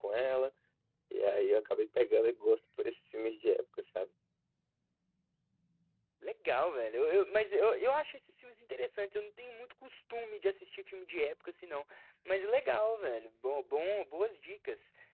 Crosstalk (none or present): none